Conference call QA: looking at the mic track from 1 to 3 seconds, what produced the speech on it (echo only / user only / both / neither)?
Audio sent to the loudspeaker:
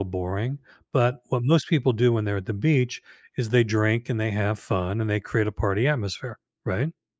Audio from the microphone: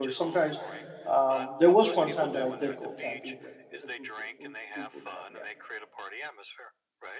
both